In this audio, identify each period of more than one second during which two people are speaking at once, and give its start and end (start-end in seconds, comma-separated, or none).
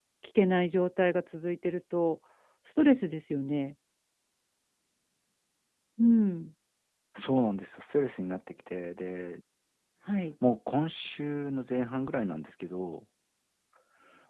none